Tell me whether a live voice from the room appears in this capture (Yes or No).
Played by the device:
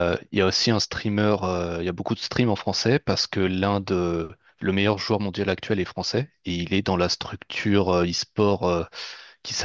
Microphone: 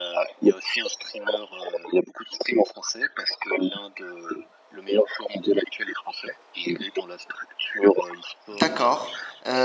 Yes